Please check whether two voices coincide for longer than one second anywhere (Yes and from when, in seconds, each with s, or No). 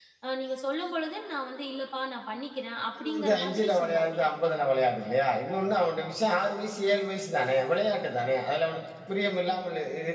Yes, from 3.0 s